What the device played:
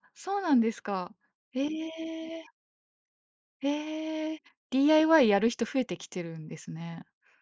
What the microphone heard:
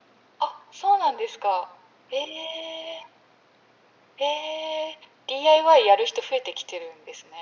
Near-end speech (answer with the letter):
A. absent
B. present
A